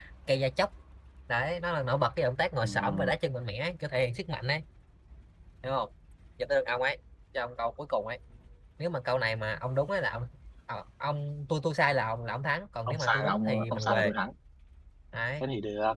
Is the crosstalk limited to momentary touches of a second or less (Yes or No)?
No